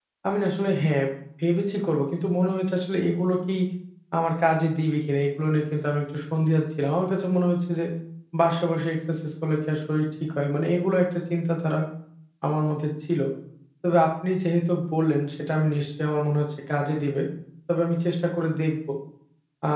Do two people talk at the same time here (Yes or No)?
No